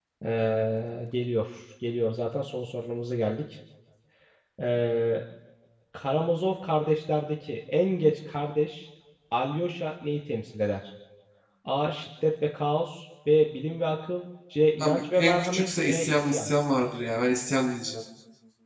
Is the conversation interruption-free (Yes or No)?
No